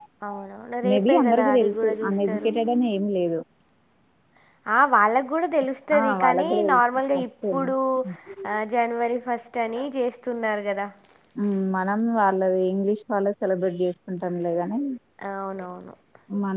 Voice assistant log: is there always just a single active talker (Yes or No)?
No